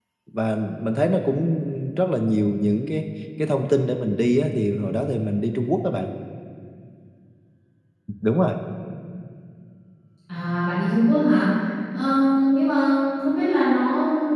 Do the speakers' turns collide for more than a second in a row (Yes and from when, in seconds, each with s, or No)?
No